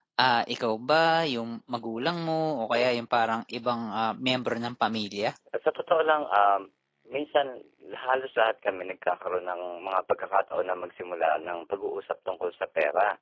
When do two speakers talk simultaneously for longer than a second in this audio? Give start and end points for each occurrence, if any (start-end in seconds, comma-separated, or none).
none